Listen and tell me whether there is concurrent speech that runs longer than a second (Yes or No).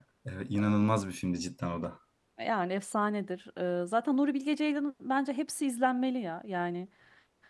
No